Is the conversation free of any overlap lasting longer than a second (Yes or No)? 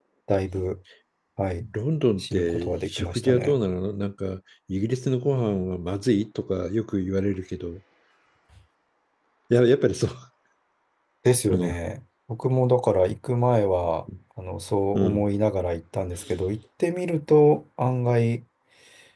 No